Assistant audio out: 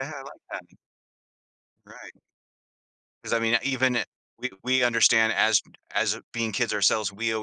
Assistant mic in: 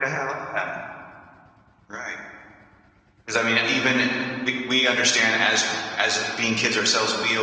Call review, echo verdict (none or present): present